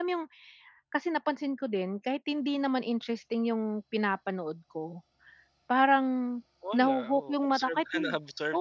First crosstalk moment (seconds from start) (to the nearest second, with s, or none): 7 s